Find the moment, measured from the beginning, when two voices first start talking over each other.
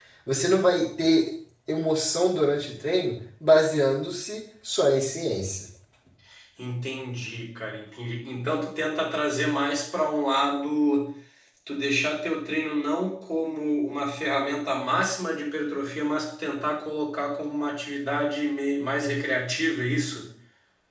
none

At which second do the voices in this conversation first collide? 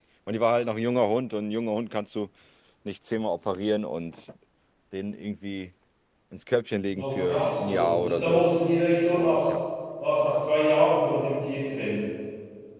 7.0 s

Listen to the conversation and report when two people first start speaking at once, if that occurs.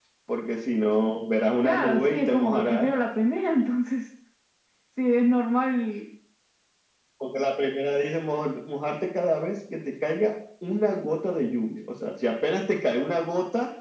1.6 s

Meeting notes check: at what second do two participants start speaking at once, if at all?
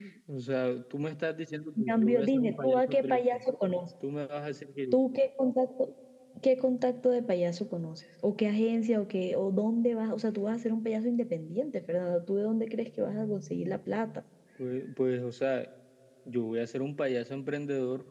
1.8 s

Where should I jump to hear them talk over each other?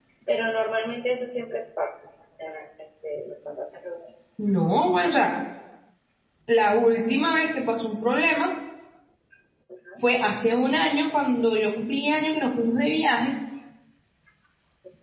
none

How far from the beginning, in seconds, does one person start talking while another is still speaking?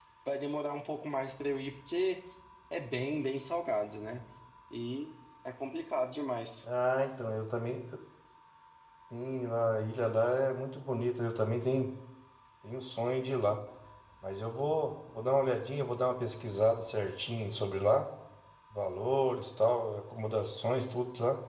none

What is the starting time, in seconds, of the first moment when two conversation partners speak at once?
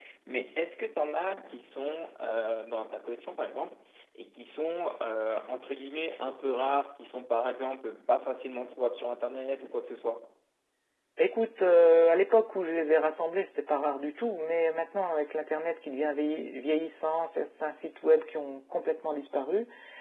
none

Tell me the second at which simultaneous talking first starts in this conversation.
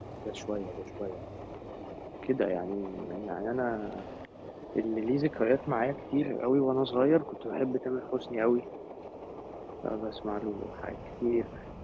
none

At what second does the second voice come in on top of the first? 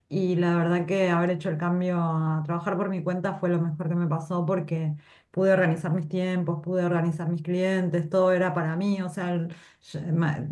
none

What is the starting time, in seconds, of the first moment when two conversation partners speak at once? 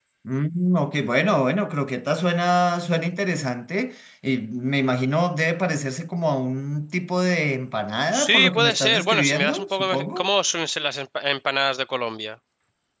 8.1 s

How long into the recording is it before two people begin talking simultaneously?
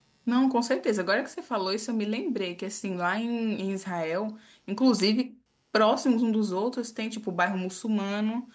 none

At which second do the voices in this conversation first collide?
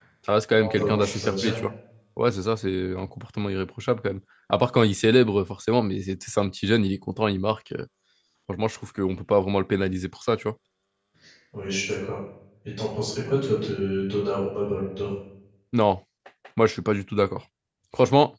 0.5 s

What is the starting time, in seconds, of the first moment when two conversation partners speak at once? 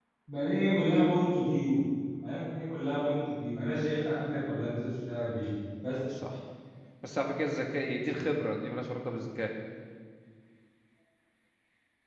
none

